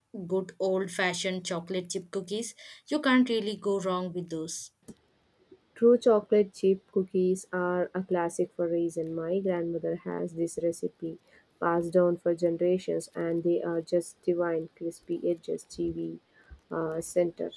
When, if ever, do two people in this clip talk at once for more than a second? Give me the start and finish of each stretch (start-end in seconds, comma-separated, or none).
none